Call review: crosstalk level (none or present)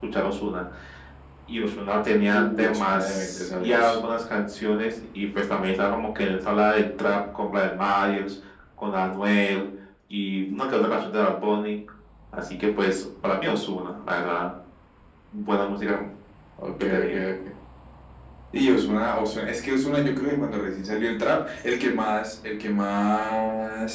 present